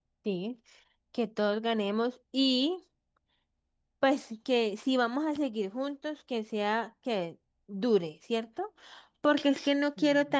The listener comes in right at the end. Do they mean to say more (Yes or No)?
No